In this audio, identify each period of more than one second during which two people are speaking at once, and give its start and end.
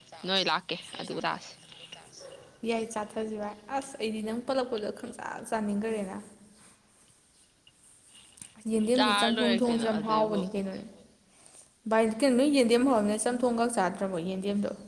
9.2-10.4

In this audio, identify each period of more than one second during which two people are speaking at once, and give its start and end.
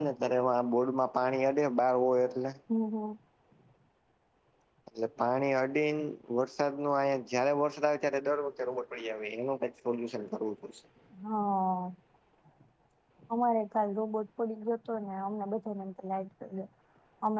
none

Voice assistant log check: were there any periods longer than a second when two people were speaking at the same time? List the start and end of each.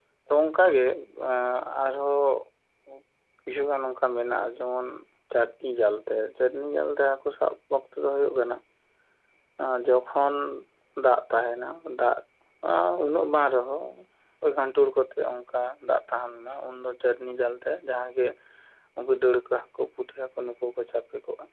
none

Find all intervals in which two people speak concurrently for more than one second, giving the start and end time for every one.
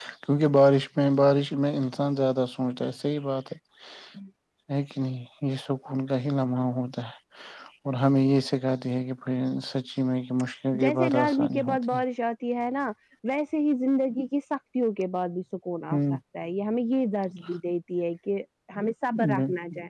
10.8-12.0

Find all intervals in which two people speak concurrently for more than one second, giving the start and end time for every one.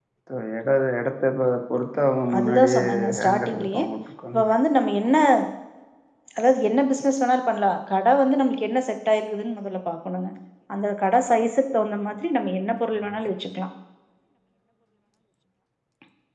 2.4-3.8

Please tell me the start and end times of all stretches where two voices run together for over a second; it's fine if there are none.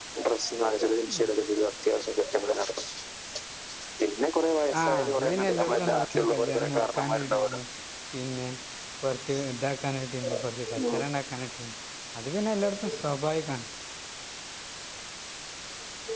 4.8-7.5

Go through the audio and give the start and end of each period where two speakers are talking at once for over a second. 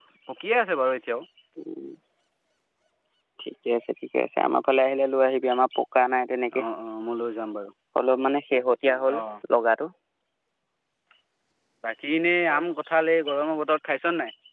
none

